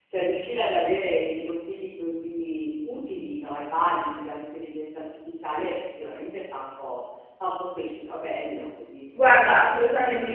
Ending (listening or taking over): taking over